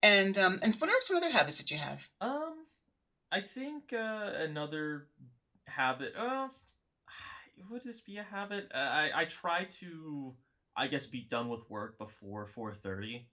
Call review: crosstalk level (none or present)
none